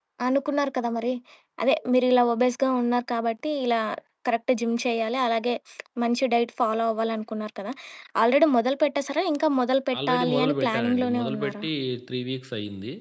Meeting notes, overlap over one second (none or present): present